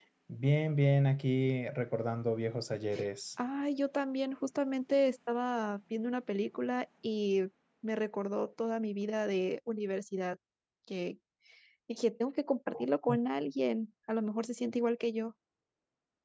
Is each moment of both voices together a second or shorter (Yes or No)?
Yes